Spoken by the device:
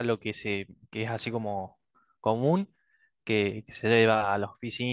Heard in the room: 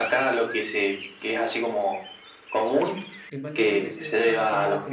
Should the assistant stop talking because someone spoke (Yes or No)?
Yes